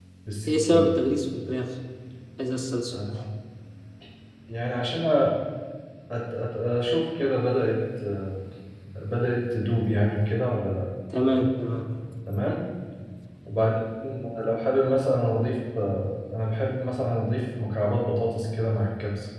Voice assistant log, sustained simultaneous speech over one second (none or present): none